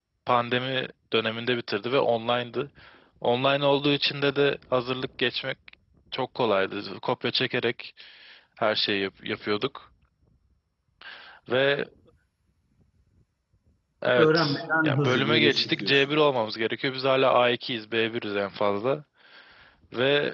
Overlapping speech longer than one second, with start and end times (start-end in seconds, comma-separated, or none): 14.2-15.9